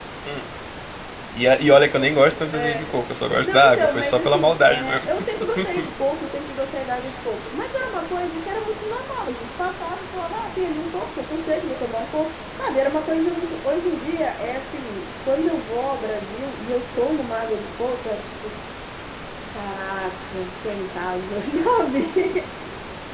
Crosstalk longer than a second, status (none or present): present